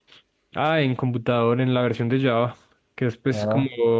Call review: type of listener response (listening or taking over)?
listening